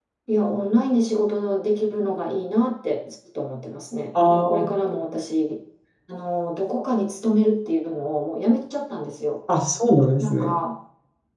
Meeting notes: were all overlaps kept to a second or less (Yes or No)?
Yes